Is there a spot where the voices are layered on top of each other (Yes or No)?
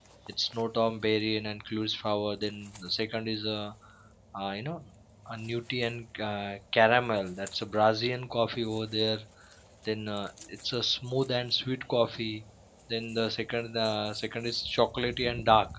No